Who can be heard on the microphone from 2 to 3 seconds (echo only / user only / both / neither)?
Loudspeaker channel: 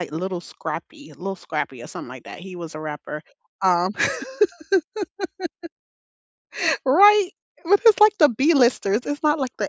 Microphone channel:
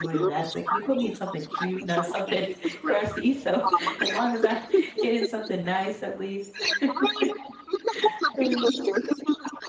both